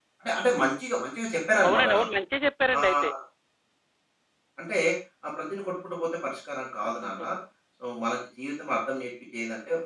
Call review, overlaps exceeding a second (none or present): none